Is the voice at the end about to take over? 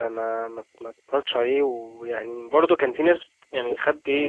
No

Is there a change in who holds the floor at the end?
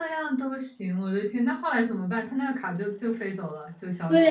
Yes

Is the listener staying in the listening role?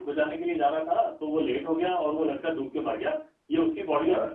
Yes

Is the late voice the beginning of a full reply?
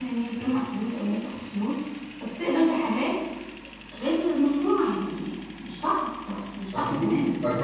Yes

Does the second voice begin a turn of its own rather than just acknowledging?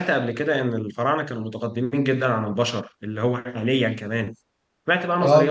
No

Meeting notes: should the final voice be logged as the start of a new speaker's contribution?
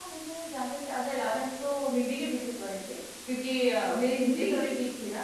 No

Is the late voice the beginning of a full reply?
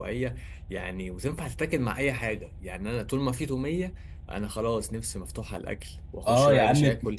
Yes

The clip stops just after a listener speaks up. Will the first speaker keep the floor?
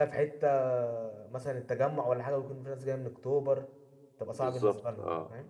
No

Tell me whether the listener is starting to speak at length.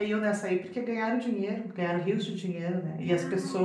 No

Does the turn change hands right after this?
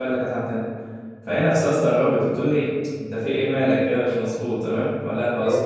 No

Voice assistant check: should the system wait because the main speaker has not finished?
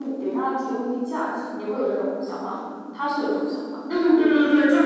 No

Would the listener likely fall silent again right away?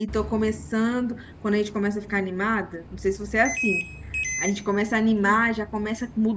Yes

